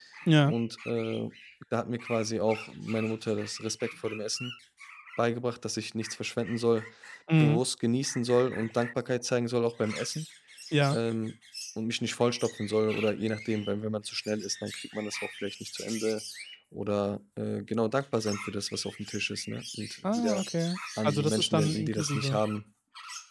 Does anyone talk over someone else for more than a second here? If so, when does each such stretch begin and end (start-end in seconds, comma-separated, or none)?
21.0-22.4